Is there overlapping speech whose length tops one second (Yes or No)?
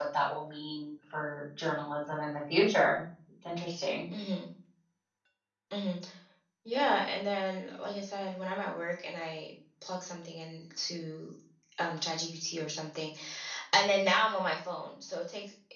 No